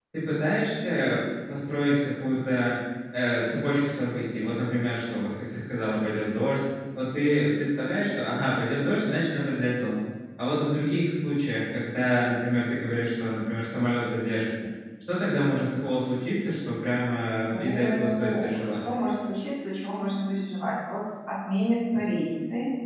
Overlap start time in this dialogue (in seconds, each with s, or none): 17.5 s